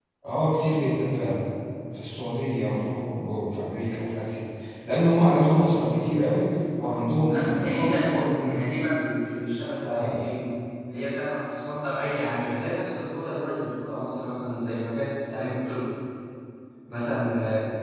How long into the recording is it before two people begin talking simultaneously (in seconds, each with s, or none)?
7.2 s